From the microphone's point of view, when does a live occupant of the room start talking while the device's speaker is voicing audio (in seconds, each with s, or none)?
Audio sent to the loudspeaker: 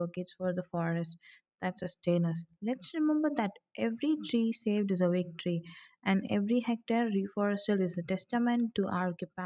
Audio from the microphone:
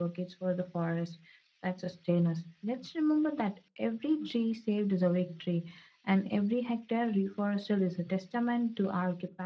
none